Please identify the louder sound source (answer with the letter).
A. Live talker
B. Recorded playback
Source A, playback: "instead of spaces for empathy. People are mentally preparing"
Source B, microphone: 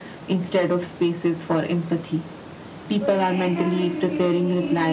B